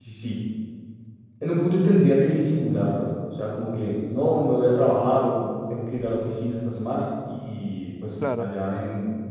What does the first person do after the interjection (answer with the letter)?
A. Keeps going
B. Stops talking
A